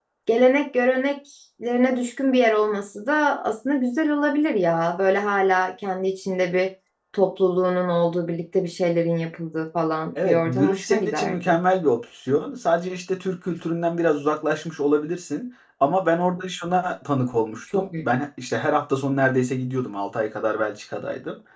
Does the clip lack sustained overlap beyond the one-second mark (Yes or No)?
No